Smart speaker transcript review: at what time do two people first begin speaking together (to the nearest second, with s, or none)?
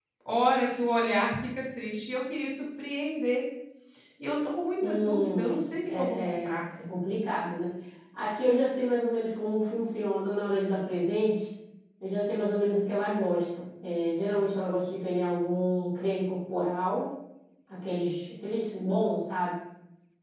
5 s